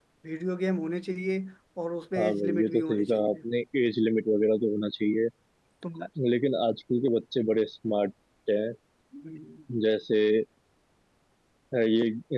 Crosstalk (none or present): present